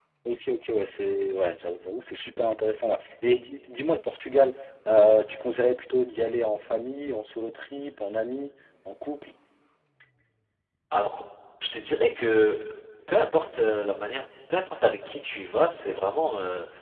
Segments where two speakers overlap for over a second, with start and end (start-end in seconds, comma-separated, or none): none